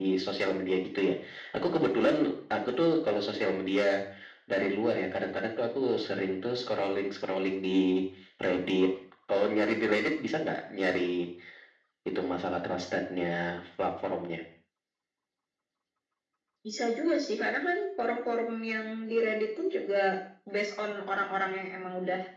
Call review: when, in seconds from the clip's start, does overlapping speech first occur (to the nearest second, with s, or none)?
none